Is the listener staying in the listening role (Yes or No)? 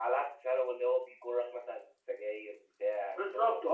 No